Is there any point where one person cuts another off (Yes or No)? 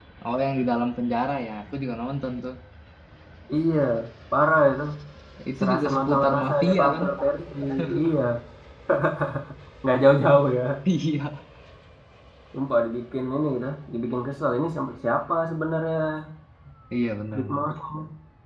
Yes